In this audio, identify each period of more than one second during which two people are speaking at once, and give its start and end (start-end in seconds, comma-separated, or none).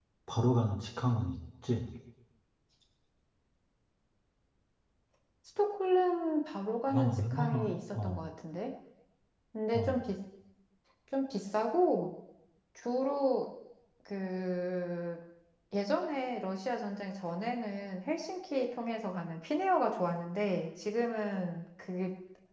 6.9-8.2